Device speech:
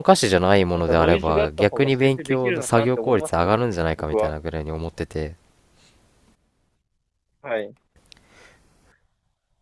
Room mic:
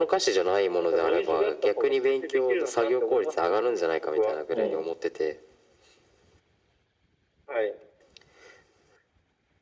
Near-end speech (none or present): present